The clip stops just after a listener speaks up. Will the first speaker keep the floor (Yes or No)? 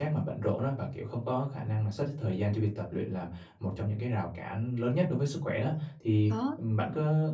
Yes